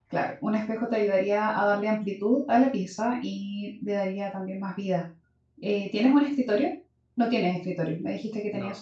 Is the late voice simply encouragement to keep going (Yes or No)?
Yes